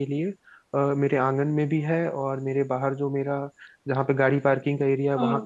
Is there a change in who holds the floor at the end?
No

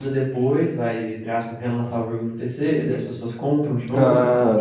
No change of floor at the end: No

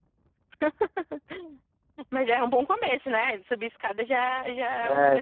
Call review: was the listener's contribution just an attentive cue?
No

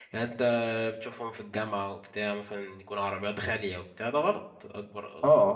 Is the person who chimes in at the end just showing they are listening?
No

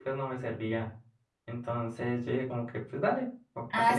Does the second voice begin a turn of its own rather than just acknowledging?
Yes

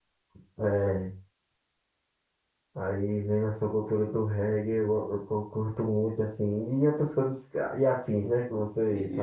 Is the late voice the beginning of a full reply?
Yes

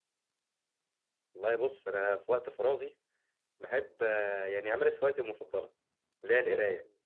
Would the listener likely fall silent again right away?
Yes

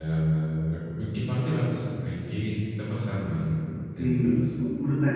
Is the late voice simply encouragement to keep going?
No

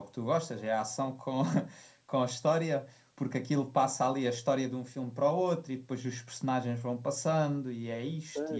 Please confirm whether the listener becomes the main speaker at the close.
Yes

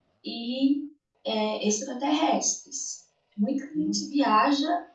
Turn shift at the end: No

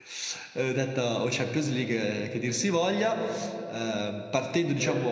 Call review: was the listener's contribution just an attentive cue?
Yes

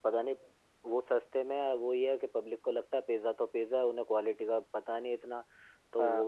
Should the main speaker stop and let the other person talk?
No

